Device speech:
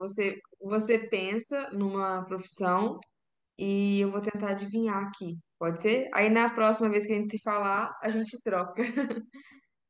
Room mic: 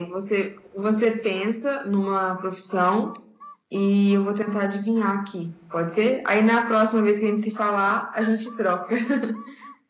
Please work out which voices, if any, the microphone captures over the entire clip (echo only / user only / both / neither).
echo only